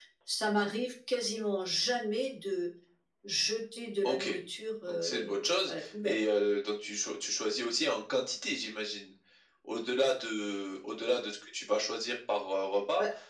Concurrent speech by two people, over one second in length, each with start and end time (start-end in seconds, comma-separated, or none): 4.9-6.2